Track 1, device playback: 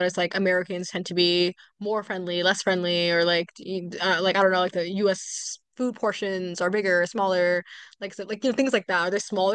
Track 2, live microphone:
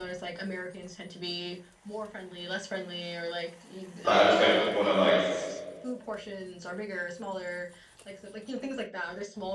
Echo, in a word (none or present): present